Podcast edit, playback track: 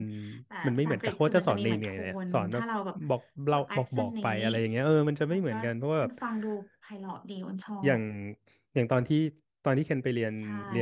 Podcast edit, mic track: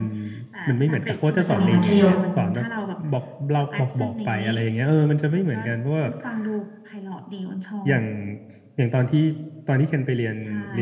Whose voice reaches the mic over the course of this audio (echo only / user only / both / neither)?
both